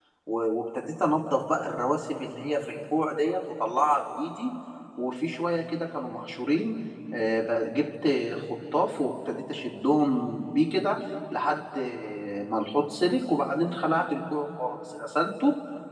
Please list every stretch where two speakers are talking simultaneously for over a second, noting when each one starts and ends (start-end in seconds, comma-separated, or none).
none